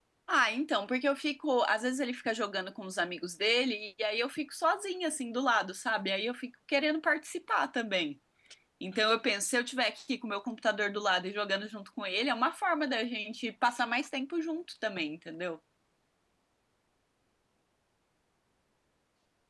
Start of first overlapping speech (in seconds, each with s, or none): none